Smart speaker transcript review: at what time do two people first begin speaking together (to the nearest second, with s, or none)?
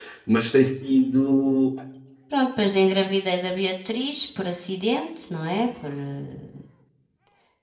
none